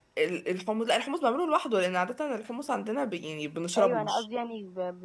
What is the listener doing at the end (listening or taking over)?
taking over